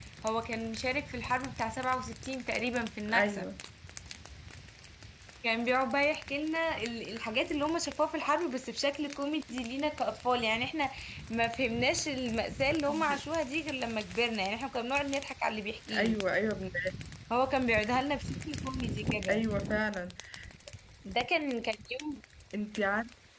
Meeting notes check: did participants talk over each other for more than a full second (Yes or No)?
No